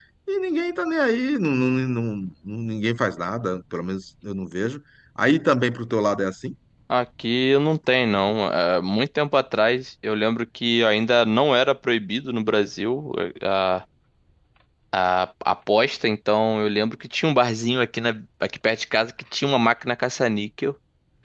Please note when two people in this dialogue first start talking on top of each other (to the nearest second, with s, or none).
none